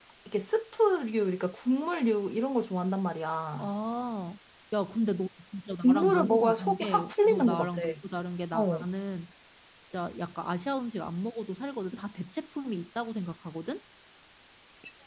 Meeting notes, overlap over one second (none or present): present